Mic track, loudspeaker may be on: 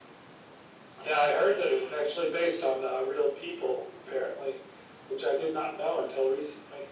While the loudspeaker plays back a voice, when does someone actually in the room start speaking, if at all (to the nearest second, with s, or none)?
none